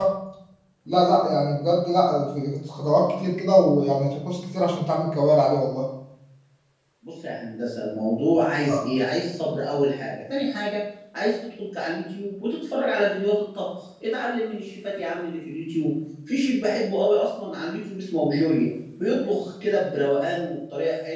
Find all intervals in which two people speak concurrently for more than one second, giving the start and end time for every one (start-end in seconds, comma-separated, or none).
none